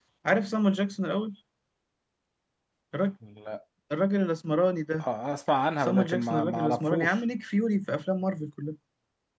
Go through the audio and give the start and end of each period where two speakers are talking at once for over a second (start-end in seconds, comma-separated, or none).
5.8-7.2